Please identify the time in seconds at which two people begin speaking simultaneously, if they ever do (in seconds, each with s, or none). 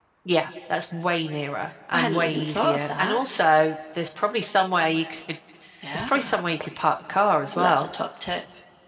1.9 s